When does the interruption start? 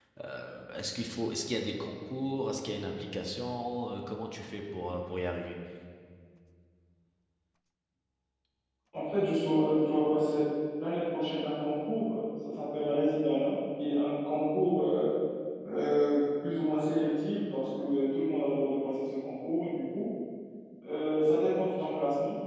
none

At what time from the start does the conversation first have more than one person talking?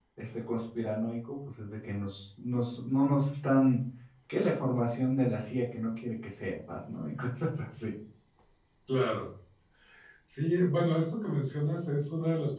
none

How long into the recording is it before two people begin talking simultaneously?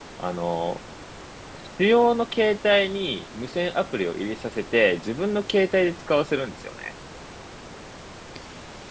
none

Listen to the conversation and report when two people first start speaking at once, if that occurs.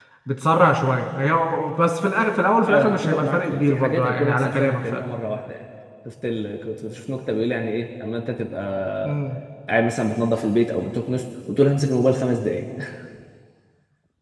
2.6 s

